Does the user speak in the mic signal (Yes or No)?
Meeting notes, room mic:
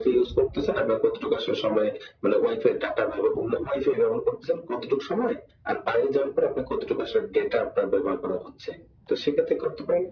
No